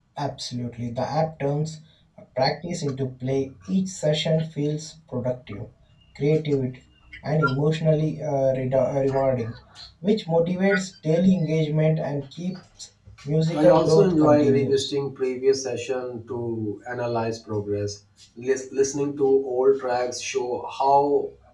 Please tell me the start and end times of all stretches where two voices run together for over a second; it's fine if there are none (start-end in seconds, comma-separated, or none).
13.5-14.9